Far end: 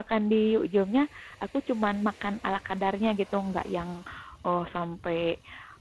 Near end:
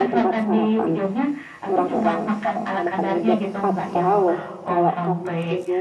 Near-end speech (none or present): present